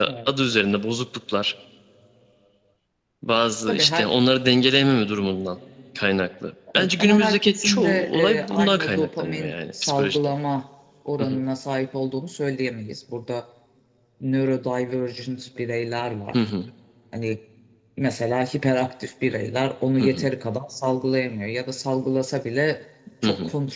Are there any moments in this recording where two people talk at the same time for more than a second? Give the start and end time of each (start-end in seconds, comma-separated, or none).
6.8-10.2